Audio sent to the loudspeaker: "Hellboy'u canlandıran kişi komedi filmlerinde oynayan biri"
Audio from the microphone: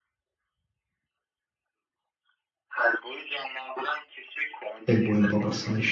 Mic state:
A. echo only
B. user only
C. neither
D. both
D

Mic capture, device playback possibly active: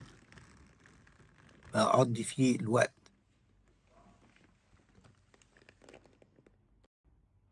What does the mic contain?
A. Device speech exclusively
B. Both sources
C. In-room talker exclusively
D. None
C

